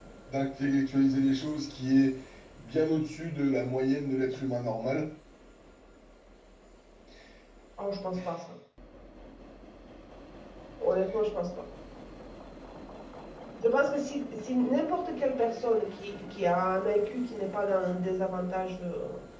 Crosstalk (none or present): none